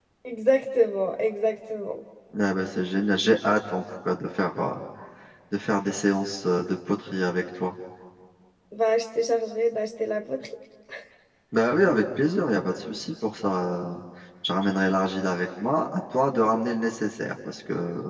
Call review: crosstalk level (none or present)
none